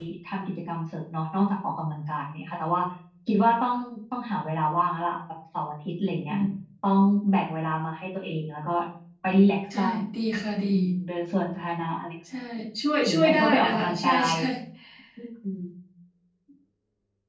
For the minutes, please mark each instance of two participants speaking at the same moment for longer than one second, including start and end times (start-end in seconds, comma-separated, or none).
13.0-14.3